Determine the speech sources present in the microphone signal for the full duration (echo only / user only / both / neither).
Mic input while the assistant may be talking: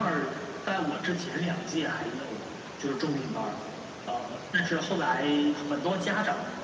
echo only